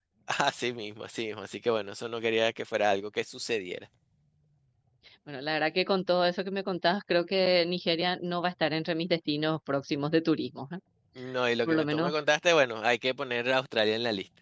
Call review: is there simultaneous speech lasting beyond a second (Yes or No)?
No